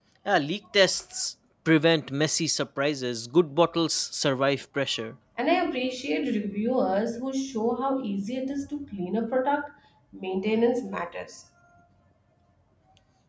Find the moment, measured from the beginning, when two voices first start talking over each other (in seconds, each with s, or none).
none